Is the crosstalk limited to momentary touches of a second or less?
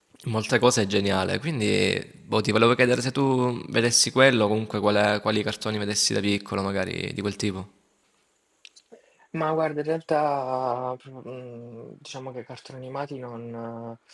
Yes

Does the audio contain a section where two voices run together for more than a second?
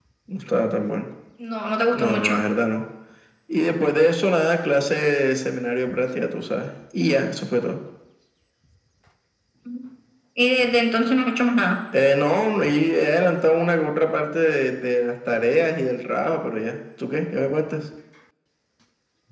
No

